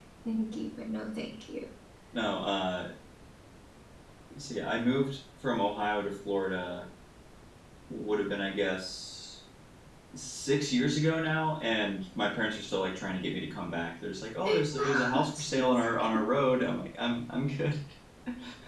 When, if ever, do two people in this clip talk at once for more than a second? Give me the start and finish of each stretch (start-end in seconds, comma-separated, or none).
14.4-16.1